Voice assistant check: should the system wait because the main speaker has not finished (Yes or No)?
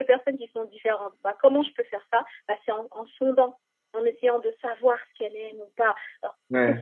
Yes